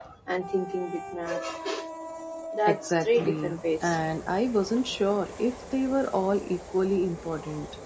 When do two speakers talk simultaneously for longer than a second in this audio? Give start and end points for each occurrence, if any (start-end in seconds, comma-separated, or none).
2.7-4.0